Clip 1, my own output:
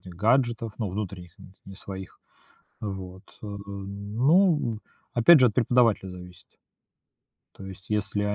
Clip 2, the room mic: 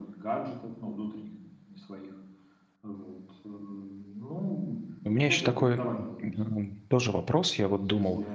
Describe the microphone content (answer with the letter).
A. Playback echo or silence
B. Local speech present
B